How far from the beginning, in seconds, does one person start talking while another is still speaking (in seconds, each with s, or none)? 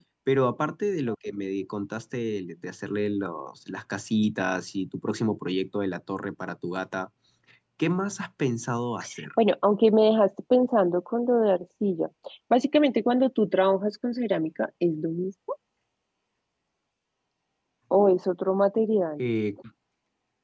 none